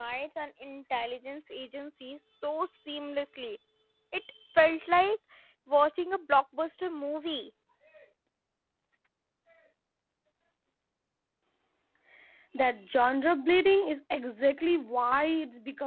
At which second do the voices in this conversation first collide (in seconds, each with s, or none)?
none